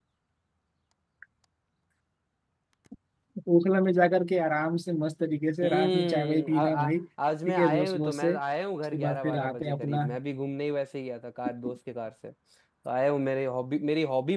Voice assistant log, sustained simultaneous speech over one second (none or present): present